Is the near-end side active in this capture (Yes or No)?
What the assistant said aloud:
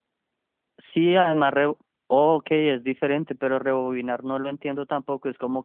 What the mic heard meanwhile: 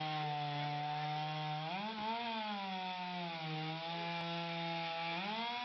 No